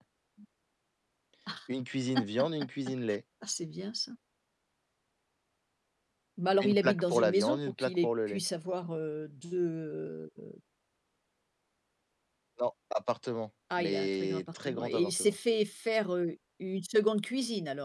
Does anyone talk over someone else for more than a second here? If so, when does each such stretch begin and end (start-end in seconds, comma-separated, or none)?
6.6-8.4, 13.8-15.3